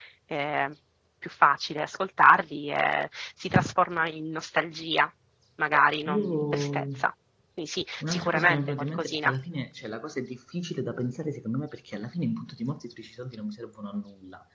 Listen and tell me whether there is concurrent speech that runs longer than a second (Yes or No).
Yes